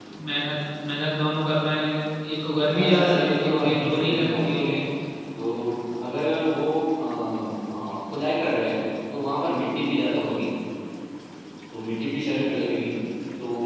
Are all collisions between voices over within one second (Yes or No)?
No